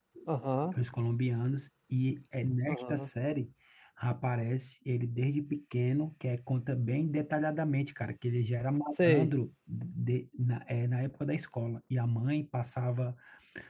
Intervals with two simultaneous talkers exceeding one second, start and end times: none

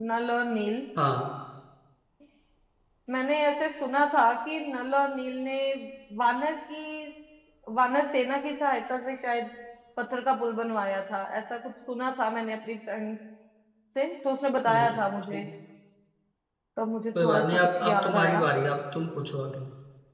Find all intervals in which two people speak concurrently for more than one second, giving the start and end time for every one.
17.2-18.5

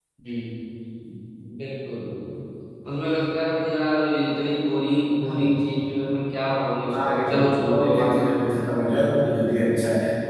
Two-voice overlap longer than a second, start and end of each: 7.1-8.8

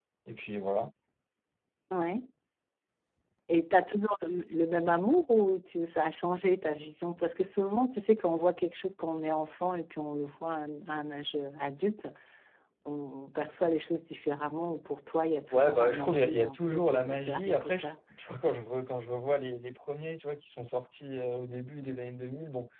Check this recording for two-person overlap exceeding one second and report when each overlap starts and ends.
15.5-17.9

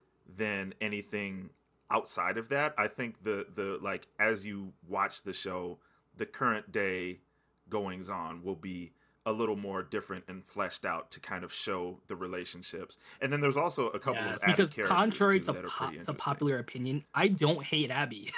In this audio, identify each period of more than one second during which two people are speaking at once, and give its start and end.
14.1-16.4

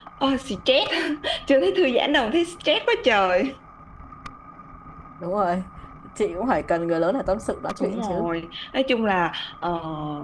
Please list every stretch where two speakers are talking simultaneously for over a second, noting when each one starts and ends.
none

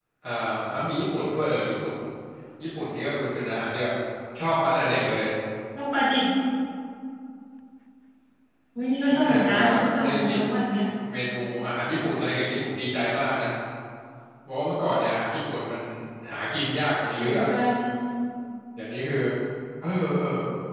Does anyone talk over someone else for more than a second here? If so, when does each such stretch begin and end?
9.0-10.4

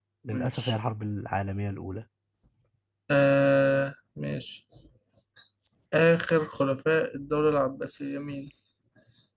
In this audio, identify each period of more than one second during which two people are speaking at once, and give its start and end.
none

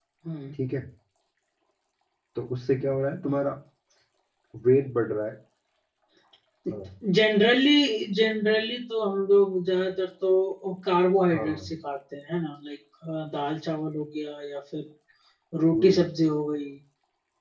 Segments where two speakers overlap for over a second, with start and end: none

